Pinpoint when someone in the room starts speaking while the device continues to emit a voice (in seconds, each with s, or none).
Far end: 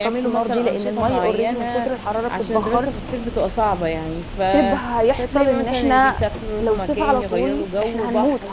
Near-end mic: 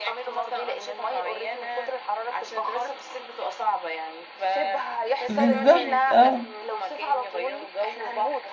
5.3 s